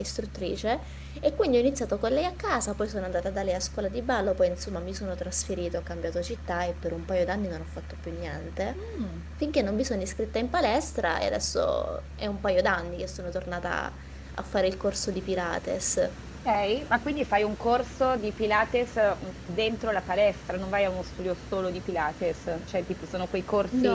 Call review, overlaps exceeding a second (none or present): none